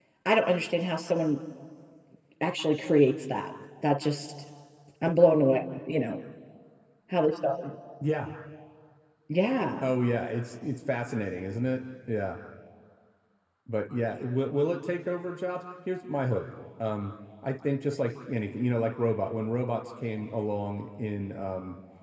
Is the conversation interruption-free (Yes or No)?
Yes